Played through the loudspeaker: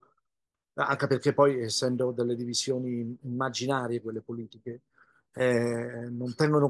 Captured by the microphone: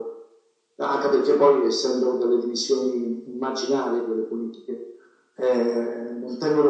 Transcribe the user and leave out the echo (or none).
none